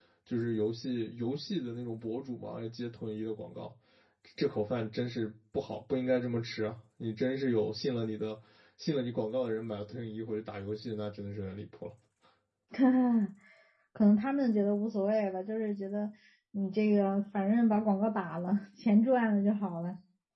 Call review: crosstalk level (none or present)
none